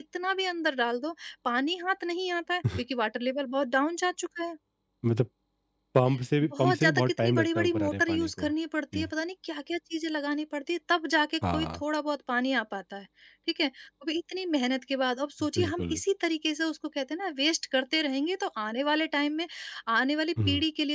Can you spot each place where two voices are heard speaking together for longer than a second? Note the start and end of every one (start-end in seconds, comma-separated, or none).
6.5-8.5